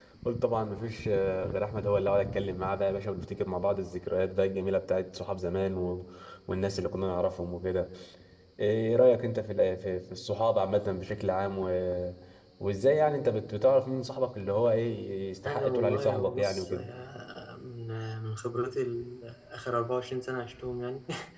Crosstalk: present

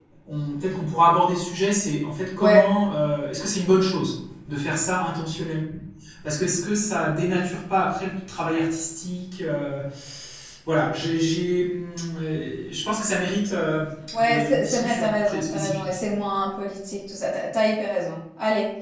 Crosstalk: present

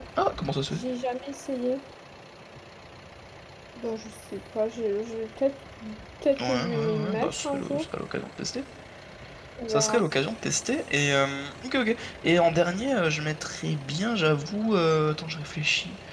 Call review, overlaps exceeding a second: present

